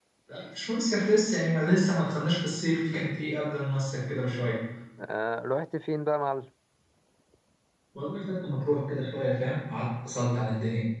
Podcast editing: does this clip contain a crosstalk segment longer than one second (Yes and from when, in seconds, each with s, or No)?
No